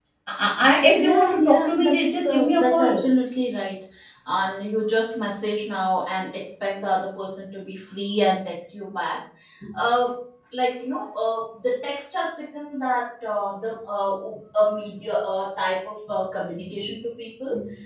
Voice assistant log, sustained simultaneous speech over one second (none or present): present